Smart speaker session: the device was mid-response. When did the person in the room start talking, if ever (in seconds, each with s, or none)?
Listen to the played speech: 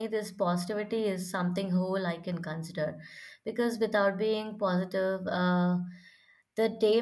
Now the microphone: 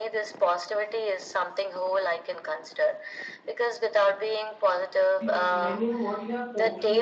5.2 s